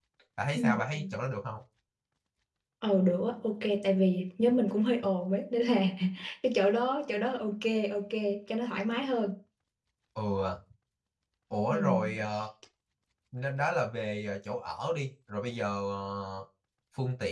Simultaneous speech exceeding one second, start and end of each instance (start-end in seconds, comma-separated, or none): none